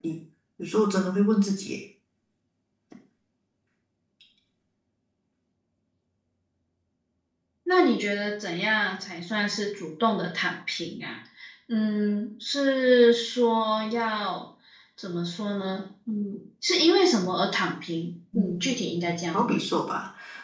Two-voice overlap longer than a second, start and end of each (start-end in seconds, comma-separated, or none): 18.4-19.6